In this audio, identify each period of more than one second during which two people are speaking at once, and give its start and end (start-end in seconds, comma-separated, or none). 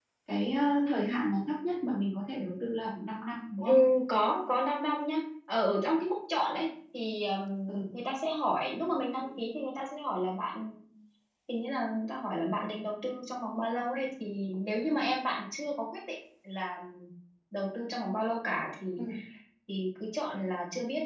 none